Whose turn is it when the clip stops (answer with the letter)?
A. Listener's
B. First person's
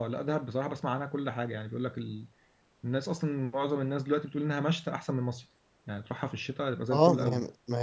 A